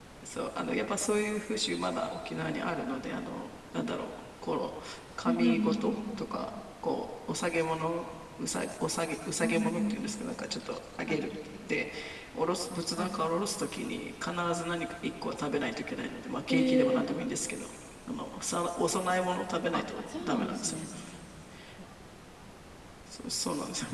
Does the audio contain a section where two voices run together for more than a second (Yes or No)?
Yes